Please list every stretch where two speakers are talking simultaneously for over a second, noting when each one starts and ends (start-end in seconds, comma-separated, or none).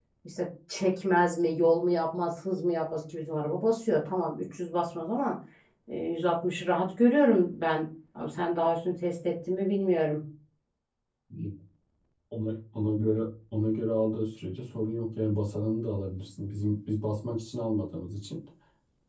none